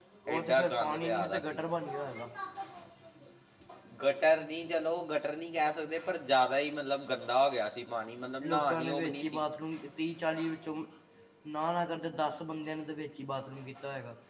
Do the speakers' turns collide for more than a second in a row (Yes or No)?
Yes